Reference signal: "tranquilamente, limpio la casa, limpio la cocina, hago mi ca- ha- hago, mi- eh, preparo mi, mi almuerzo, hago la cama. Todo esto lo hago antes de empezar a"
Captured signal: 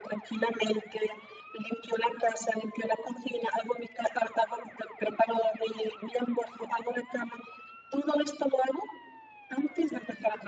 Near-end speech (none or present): none